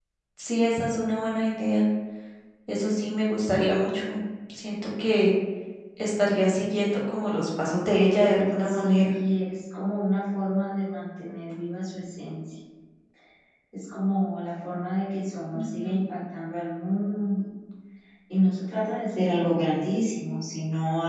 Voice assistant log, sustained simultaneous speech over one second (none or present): present